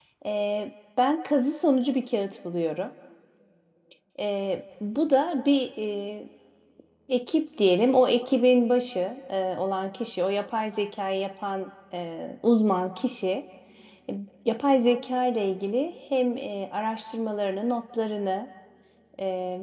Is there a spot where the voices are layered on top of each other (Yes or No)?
No